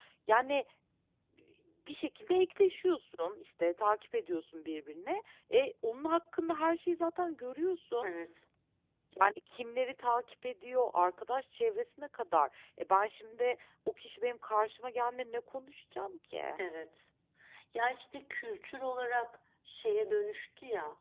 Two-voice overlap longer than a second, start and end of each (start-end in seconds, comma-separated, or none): none